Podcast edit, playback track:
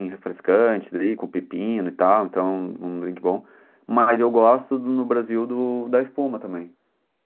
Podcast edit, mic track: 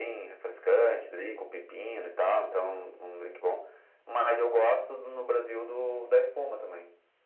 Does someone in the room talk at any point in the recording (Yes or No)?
No